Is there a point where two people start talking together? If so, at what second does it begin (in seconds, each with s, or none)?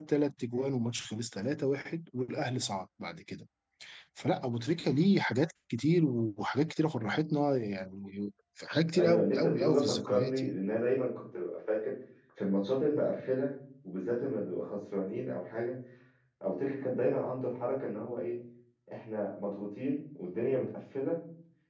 8.9 s